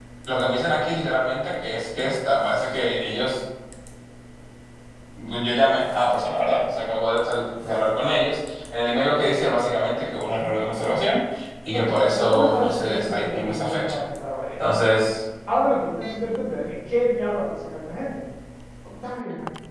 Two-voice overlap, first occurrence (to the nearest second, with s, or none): 12 s